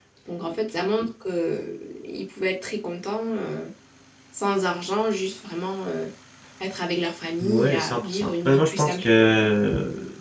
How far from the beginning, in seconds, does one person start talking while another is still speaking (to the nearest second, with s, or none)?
7 s